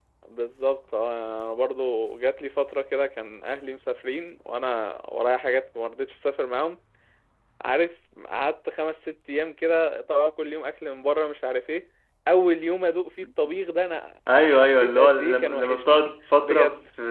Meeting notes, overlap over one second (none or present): present